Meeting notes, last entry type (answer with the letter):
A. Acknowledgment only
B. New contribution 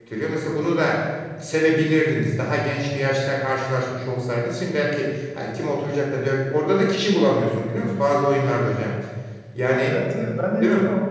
B